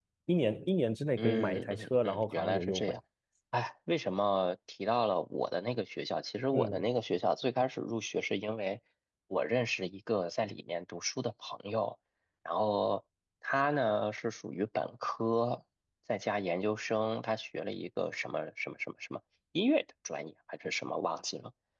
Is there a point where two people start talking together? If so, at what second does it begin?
1.2 s

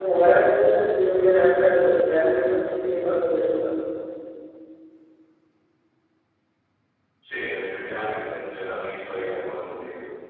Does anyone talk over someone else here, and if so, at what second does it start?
none

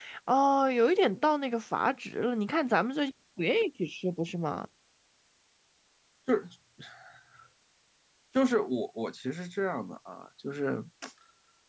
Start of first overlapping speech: none

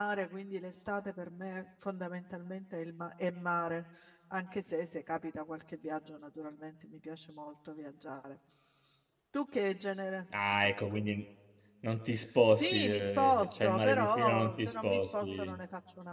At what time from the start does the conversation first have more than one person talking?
12.5 s

